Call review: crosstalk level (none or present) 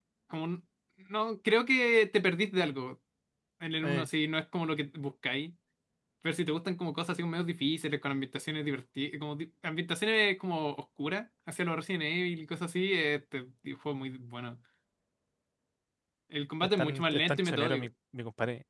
present